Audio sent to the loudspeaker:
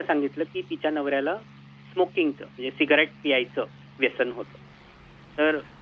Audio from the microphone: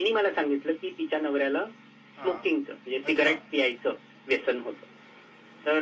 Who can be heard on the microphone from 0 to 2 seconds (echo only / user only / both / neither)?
echo only